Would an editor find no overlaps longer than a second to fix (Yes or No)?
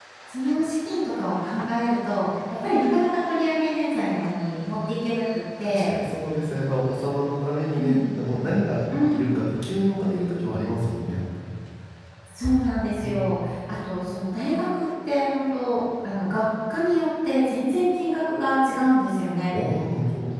Yes